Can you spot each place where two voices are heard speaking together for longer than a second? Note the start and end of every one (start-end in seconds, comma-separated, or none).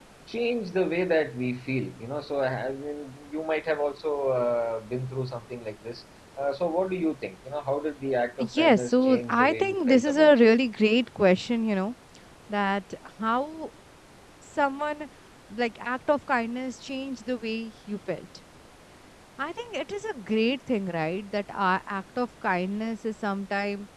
8.4-10.5